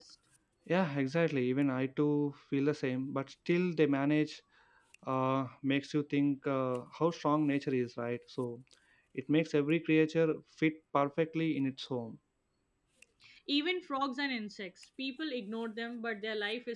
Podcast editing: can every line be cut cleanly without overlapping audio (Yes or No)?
Yes